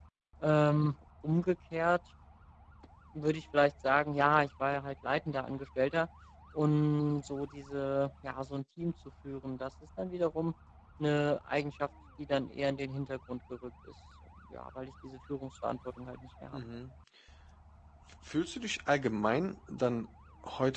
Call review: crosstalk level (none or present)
none